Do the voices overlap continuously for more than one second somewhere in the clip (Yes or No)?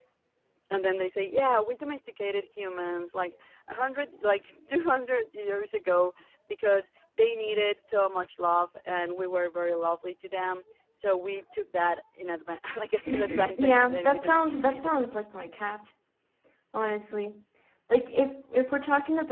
Yes